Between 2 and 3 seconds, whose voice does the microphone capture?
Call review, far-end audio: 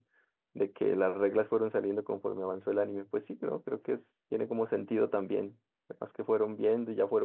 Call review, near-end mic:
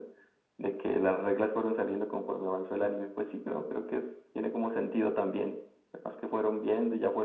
echo only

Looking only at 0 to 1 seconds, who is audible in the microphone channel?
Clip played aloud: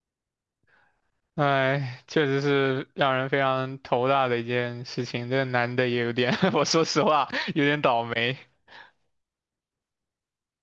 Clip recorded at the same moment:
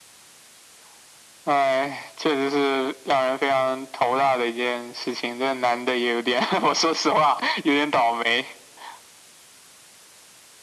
neither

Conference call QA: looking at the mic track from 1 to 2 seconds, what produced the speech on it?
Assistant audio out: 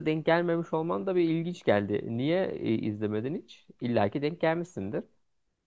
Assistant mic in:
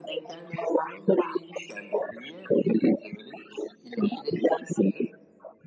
echo only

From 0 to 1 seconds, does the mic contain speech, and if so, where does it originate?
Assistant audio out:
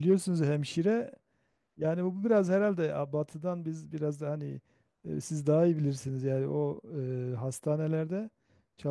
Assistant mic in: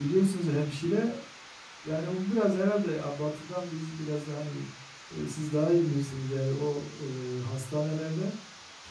echo only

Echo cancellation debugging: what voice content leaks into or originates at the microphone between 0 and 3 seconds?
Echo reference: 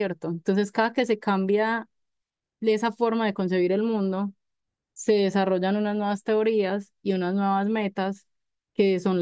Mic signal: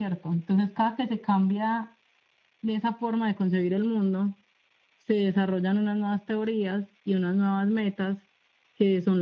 echo only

